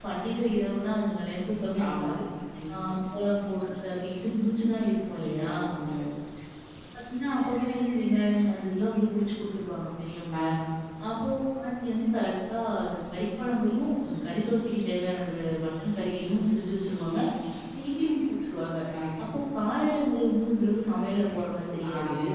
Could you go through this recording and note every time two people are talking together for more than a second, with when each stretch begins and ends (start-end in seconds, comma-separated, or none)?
none